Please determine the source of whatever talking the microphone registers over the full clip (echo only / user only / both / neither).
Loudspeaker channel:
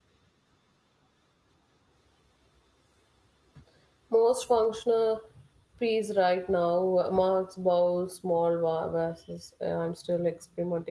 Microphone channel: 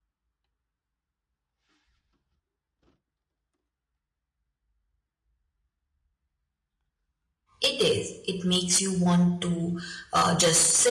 user only